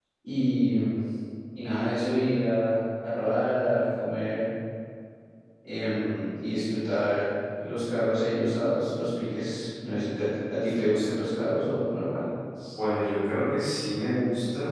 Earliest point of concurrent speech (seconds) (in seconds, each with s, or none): none